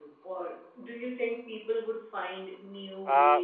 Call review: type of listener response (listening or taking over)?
taking over